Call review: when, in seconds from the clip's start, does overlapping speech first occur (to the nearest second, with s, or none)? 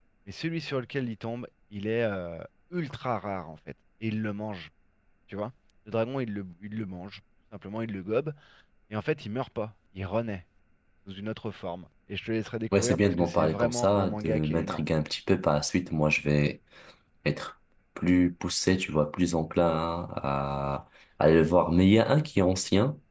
13 s